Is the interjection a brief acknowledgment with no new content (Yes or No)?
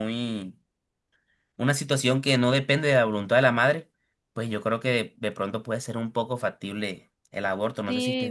No